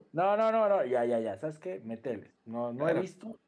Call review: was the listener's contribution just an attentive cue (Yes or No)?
No